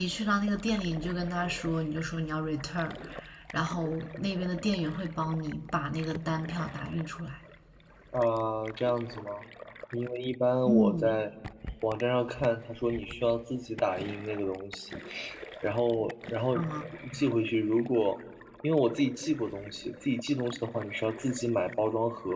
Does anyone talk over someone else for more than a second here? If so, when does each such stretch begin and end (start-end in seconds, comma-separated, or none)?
none